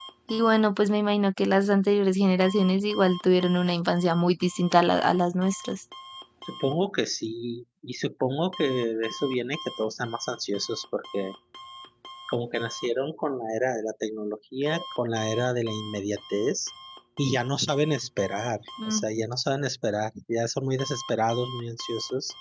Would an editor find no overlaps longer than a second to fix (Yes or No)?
Yes